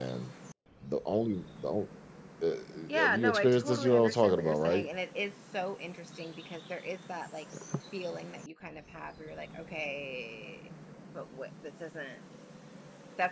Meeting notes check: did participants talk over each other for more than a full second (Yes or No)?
Yes